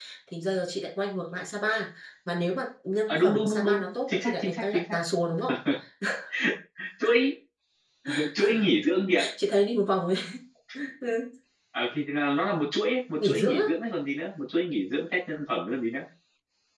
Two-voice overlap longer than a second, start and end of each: 3.1-5.0

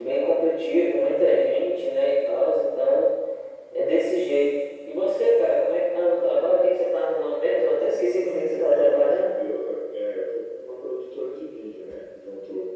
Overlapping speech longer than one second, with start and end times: 8.1-9.3

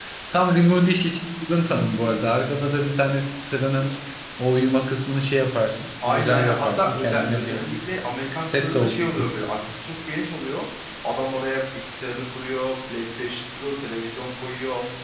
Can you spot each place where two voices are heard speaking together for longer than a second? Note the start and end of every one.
6.1-7.7

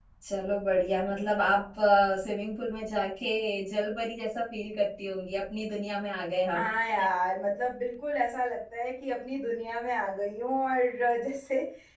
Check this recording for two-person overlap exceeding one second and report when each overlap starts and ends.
none

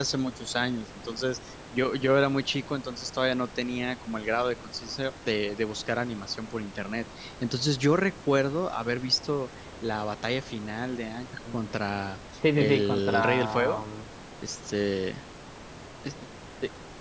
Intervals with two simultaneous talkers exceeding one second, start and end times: 12.6-13.8

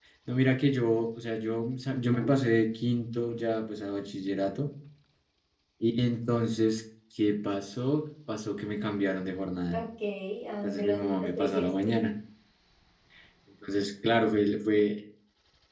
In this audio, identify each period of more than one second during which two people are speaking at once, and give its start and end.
10.6-11.9

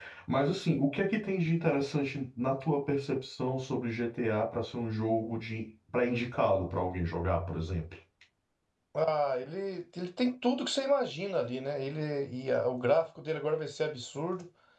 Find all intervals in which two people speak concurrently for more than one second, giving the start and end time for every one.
none

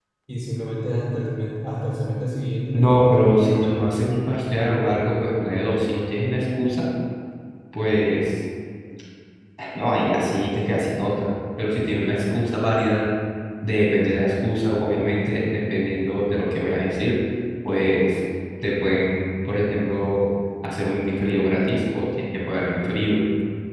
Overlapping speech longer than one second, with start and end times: 2.7-4.1

